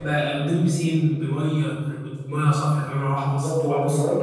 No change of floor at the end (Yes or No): No